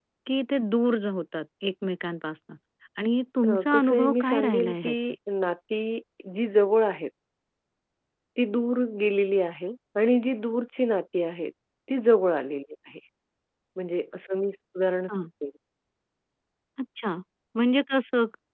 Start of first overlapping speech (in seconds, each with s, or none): 3.5 s